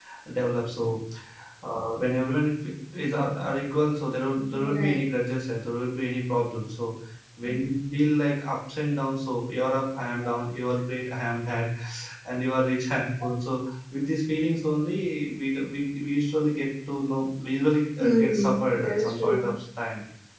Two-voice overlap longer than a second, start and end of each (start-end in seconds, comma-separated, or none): 18.0-19.5